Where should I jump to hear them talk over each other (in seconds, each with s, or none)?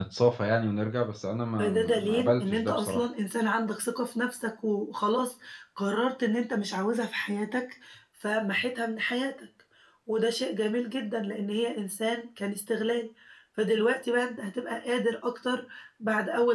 1.6 s